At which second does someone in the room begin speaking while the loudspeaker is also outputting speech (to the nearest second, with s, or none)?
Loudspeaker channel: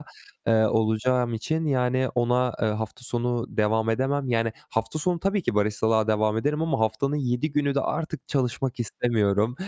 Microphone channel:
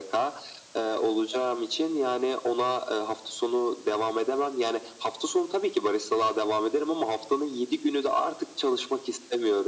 none